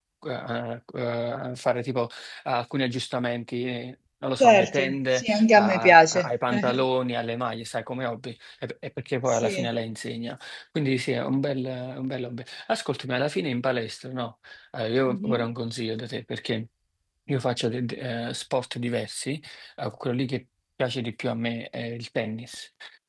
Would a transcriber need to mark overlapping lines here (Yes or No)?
Yes